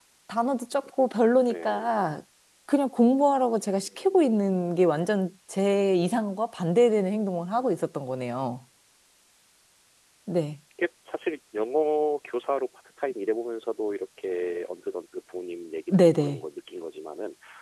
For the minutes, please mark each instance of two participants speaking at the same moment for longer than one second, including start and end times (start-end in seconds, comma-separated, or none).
none